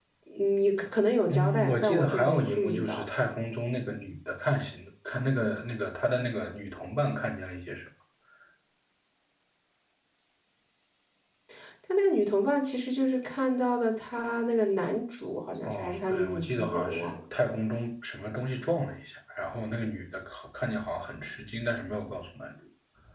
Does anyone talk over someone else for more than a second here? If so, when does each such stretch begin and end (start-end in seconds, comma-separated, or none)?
1.3-3.2, 15.7-17.1